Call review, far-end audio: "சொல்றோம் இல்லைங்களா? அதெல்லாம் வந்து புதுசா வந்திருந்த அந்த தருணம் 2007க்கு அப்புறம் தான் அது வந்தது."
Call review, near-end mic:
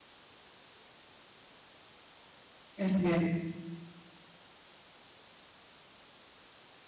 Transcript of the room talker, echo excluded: அருமை, அருமை.

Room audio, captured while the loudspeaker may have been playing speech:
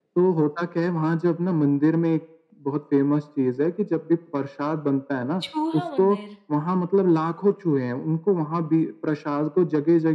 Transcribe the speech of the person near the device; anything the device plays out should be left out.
चूहा मंदिर।

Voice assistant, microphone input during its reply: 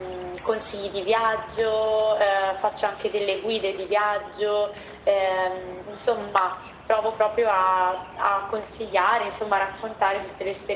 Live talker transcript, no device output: none

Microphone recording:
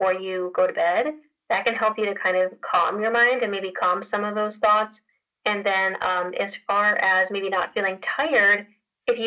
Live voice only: none

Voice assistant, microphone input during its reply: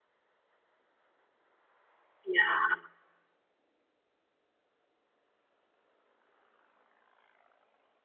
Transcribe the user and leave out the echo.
Yeah.

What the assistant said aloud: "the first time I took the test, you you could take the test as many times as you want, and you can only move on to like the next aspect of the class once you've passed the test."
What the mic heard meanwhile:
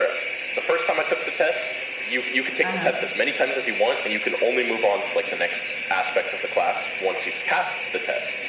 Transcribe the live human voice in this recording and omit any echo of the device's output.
uh-huh.

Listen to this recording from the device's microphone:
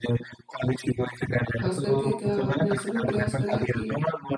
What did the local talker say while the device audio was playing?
ख़ास करके क्या आपने ऐसा भी प्रयास करा है कि

